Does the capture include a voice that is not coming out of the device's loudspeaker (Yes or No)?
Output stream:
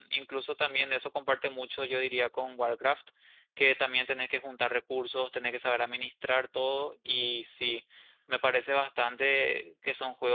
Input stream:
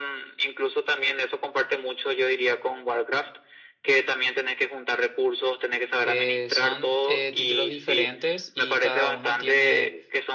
Yes